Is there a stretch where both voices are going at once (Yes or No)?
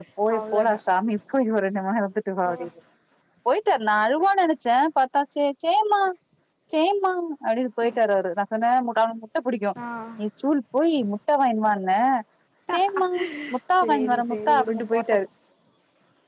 Yes